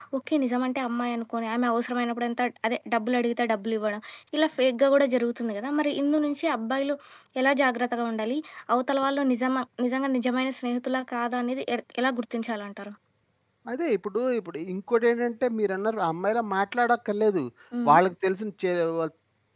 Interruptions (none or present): none